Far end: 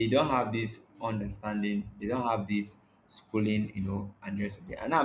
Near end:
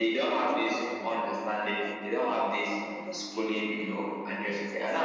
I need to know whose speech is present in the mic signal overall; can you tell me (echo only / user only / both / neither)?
both